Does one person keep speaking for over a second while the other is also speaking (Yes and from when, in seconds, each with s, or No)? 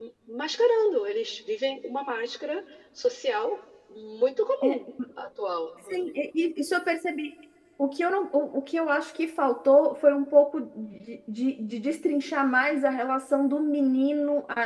No